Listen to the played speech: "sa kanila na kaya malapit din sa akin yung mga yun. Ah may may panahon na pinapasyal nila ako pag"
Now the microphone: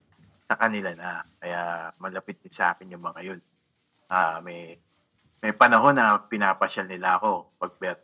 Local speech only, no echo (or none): none